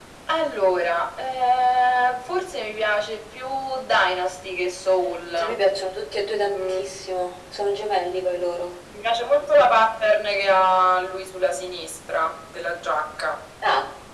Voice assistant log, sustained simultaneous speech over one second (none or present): none